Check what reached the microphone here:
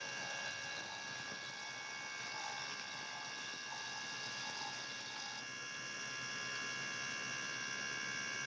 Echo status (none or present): none